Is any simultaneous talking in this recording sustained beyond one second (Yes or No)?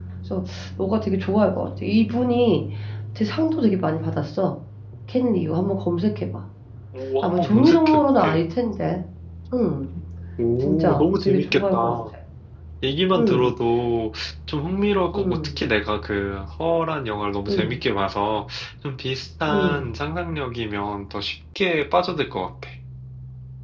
Yes